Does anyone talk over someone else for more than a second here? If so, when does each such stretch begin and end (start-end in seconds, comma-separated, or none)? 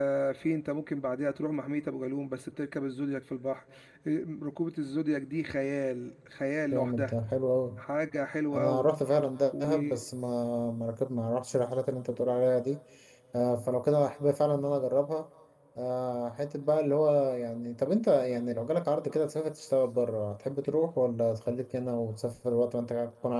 none